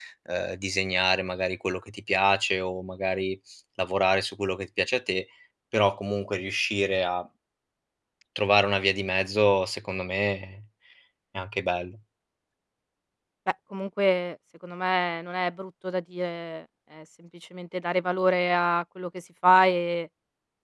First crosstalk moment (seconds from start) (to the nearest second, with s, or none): none